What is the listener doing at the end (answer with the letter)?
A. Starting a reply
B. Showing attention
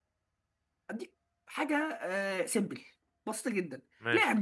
B